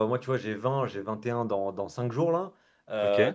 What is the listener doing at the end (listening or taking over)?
listening